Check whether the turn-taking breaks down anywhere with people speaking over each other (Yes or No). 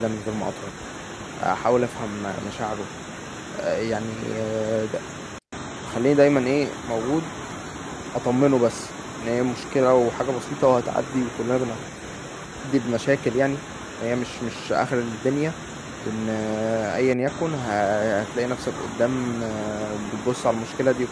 No